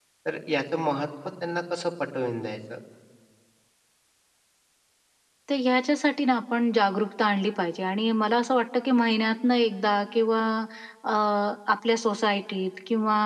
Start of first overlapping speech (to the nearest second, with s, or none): none